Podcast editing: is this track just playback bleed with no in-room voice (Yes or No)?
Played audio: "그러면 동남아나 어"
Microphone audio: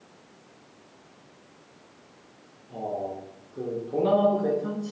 No